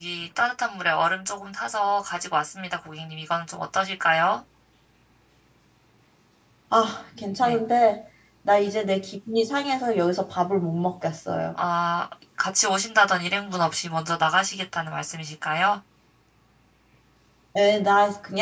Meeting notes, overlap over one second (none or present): none